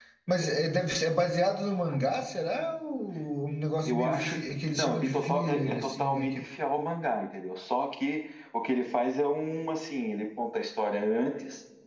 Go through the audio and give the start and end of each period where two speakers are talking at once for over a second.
3.8-6.5

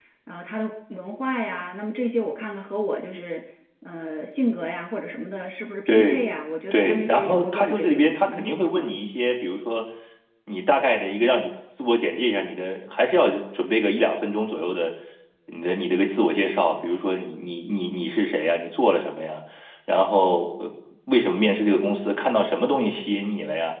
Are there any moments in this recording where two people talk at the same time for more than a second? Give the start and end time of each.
6.7-8.9

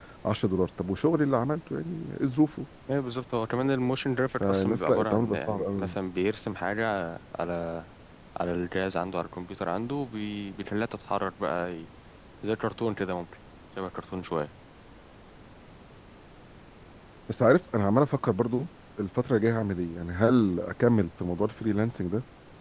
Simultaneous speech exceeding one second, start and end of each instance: 4.4-6.0

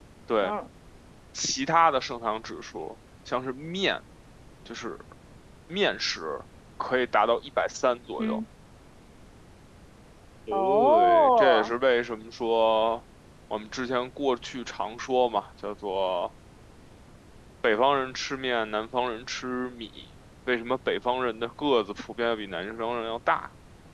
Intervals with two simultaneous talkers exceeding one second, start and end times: 10.5-11.7

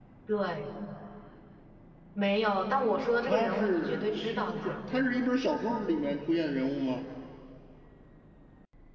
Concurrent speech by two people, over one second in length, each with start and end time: 3.2-4.8

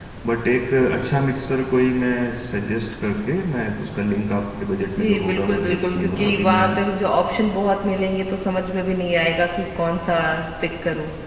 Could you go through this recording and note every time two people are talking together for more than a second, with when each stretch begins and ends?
4.8-6.7

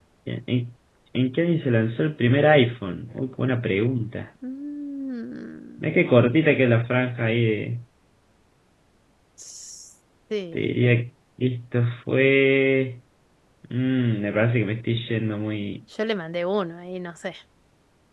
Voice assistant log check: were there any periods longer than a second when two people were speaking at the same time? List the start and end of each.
none

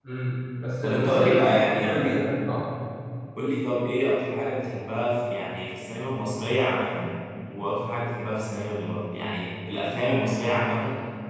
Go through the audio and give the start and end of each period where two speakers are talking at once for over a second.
0.8-2.2

